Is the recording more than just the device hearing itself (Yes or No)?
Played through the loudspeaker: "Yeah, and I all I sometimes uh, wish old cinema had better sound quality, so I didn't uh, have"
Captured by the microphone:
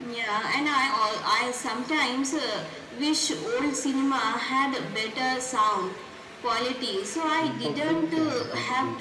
Yes